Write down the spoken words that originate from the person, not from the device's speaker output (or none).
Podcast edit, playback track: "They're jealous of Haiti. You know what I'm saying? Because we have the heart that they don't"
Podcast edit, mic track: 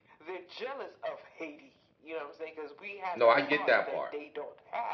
No, I get that part.